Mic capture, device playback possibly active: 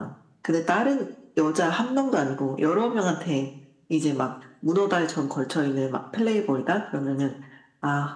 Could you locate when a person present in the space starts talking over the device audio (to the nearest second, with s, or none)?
none